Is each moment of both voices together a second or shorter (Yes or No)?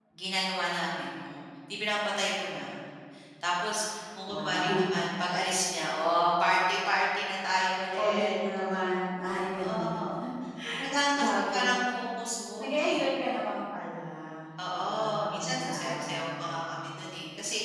No